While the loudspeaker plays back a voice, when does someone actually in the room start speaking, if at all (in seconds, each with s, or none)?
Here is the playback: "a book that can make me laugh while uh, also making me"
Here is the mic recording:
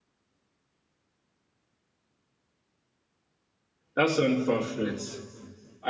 4.0 s